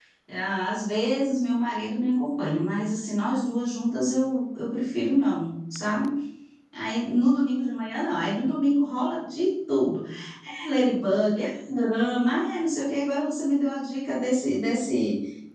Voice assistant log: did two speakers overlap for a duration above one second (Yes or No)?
No